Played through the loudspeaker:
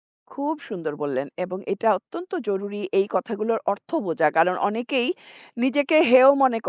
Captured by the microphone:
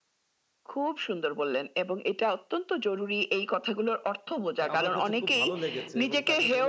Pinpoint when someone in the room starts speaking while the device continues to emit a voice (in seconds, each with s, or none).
4.6 s